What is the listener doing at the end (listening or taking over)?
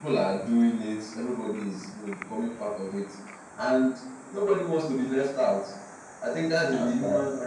listening